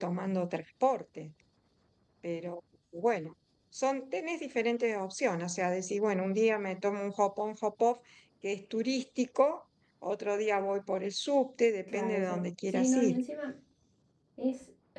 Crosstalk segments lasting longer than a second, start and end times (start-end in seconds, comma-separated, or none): 11.9-13.2